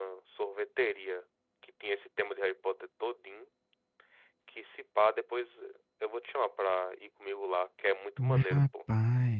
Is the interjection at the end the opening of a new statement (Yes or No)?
Yes